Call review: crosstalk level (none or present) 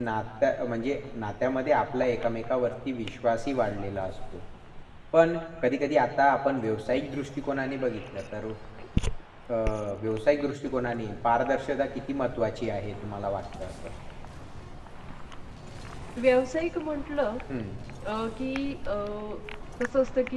none